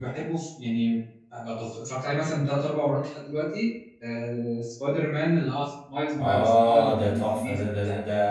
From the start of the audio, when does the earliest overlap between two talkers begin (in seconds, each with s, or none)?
6.2 s